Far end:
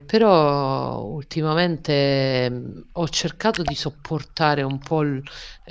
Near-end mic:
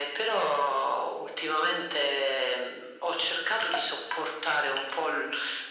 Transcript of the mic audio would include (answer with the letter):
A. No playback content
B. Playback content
B